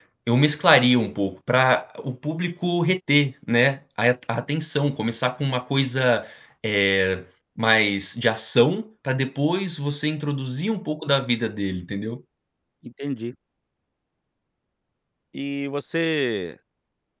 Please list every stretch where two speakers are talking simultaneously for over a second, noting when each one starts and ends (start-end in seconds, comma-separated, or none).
none